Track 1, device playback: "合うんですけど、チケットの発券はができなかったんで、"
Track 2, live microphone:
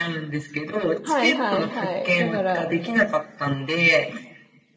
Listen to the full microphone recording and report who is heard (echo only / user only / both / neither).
both